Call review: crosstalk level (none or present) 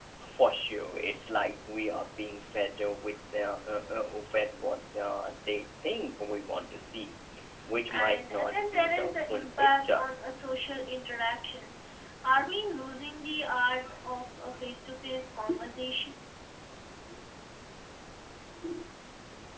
present